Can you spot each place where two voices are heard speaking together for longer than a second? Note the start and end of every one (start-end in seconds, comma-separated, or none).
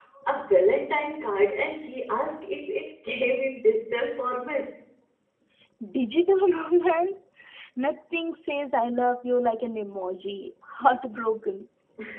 none